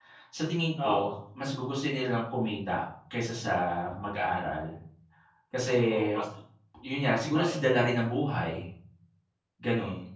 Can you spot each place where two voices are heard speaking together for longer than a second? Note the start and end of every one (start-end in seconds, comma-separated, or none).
none